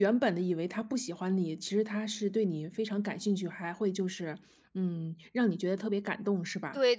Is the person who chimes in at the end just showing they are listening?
No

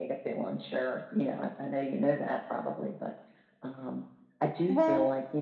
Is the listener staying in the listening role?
Yes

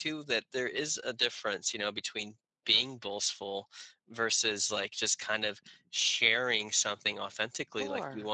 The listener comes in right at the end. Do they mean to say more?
No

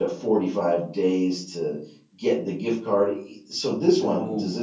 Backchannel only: Yes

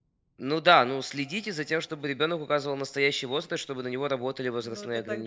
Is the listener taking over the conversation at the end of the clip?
Yes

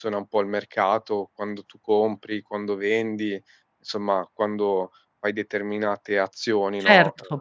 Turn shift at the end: Yes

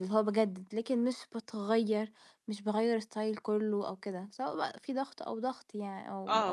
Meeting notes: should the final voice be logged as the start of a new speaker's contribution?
Yes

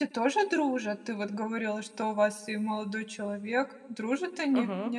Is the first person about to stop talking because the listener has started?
Yes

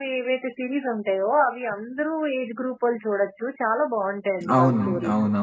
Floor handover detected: Yes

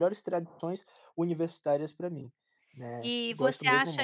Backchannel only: No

